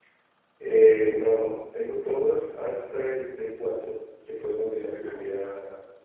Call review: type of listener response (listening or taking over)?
listening